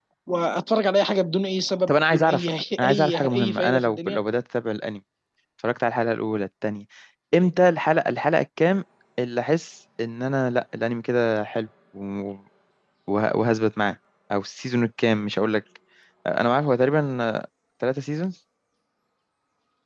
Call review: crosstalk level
present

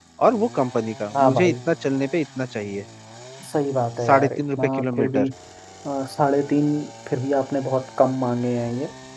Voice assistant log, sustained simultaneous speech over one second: present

